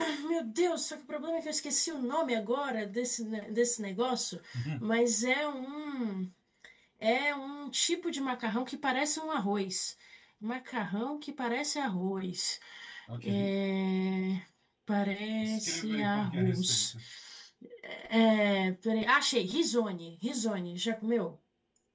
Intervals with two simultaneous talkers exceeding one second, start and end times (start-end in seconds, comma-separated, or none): 15.4-16.9